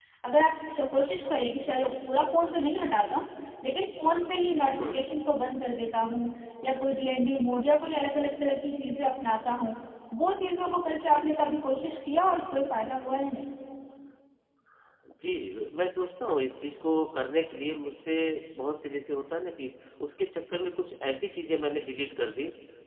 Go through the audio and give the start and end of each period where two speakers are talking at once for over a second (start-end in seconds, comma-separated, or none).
none